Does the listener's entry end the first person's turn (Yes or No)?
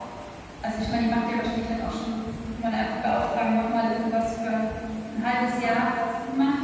No